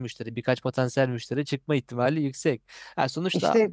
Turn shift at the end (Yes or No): No